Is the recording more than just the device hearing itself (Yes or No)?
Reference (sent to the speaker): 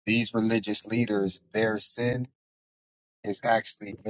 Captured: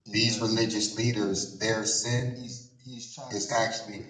Yes